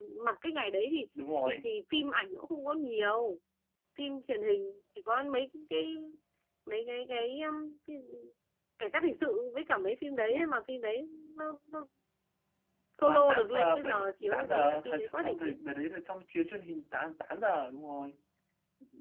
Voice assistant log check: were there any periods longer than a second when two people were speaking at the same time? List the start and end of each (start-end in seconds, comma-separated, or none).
13.1-15.6